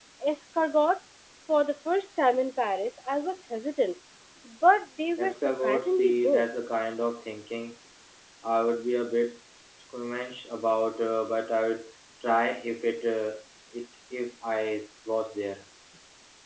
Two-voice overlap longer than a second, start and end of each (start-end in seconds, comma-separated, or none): 5.2-6.4